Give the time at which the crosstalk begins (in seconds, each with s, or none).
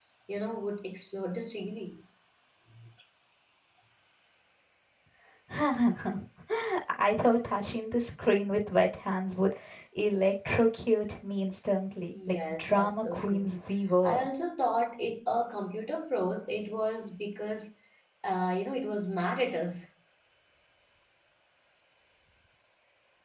12.1 s